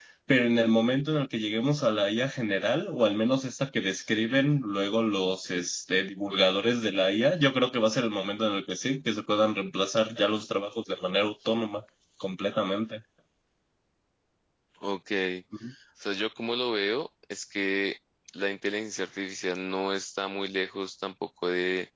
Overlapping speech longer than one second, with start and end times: none

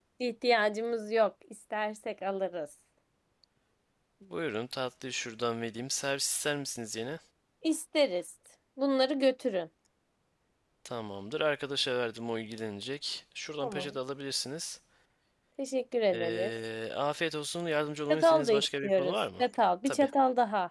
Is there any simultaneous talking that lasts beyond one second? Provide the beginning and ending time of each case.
18.1-19.4

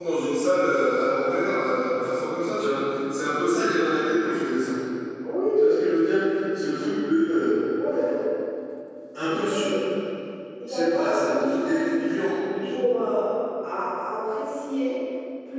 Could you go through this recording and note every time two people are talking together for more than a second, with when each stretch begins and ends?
10.7-12.1

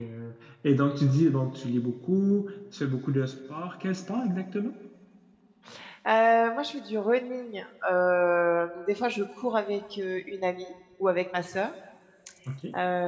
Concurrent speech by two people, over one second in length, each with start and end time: none

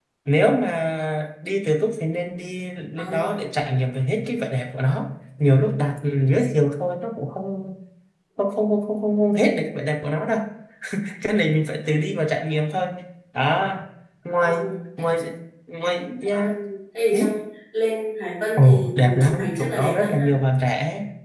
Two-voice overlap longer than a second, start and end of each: 18.6-20.4

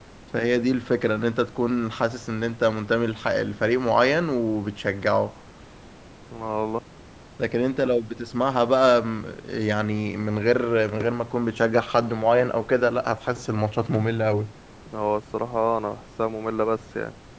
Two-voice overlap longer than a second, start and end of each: none

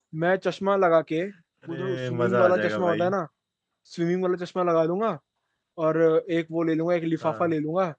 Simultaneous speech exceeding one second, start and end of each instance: 1.7-3.1

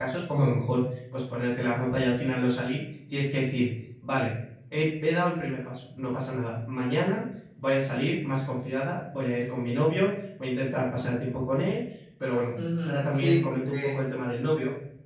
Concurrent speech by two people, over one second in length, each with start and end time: 12.8-14.1

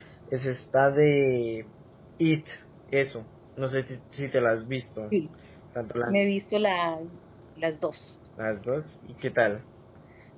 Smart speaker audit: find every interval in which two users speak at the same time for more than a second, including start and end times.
none

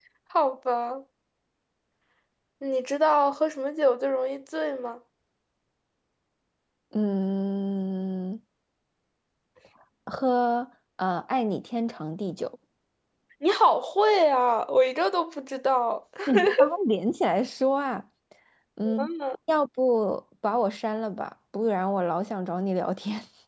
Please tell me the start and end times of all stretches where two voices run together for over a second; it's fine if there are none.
none

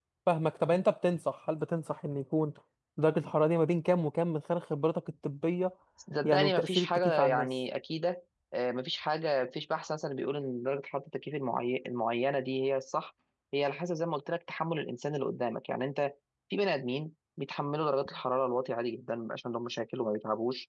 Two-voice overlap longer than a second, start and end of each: 6.2-7.5

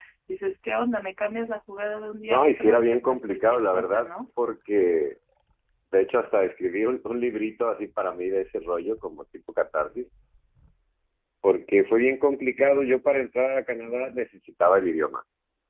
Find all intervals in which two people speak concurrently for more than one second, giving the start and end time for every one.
2.3-4.1

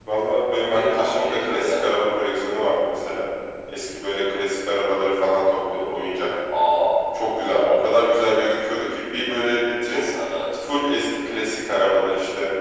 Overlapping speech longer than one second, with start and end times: 0.5-1.9

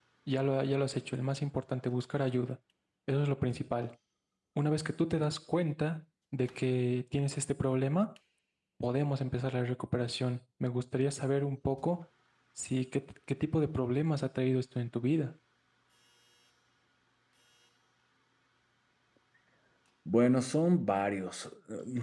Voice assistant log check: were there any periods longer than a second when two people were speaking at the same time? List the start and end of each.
none

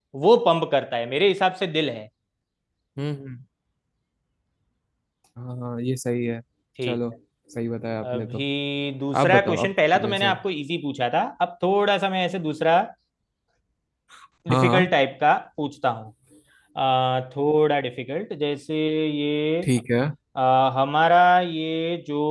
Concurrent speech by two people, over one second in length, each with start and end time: 9.2-10.4

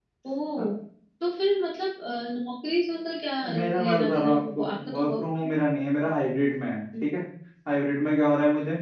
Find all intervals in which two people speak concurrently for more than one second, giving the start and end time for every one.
3.5-5.5

